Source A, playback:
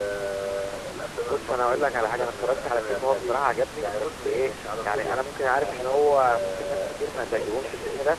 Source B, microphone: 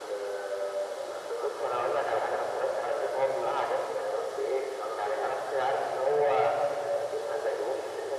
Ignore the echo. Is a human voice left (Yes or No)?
No